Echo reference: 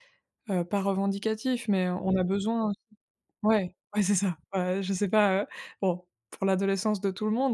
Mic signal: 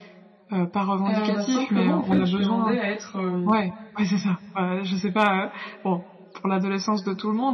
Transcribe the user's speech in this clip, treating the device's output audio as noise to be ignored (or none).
Heu, bah, simplement, en fait, je demandais à être, hem,